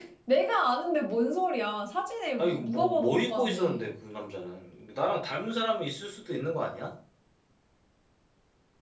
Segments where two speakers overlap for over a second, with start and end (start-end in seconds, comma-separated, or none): 2.4-3.9